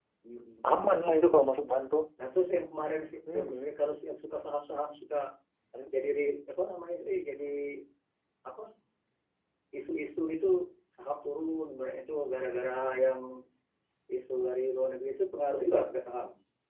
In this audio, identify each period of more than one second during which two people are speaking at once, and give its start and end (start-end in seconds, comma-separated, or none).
none